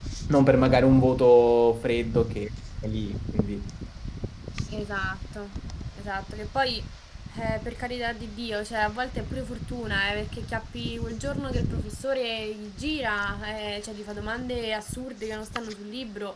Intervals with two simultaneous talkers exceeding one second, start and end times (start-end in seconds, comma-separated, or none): none